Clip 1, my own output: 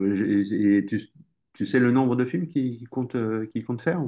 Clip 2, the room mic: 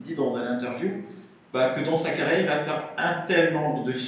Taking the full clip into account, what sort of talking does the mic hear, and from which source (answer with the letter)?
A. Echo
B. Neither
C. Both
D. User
D